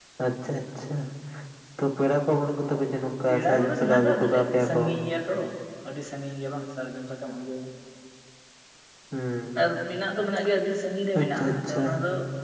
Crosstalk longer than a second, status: present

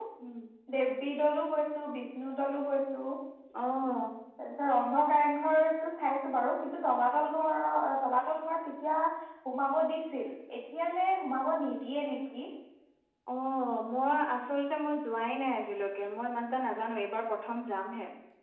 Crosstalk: none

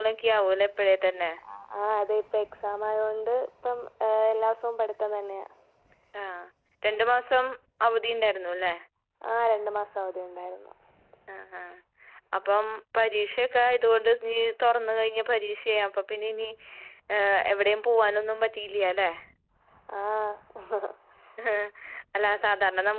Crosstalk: none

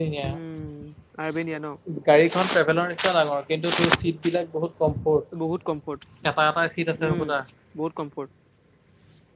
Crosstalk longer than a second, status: none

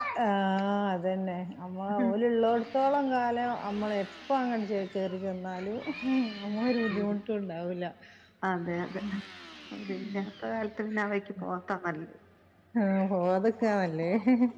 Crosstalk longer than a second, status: none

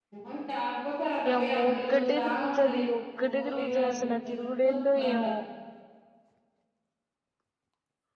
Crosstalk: present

